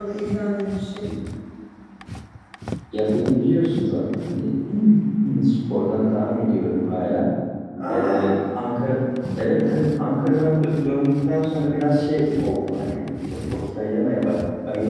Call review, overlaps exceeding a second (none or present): none